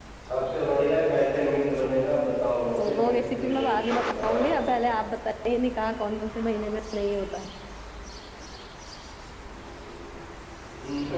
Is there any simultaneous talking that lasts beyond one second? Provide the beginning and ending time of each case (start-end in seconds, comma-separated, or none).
2.8-4.5